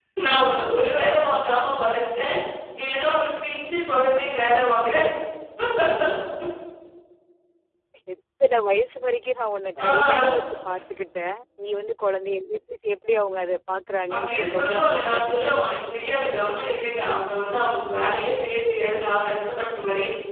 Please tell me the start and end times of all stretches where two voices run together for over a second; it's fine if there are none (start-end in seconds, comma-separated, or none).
14.1-15.5